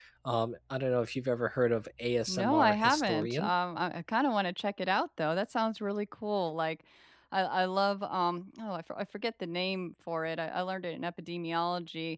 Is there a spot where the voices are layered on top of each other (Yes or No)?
Yes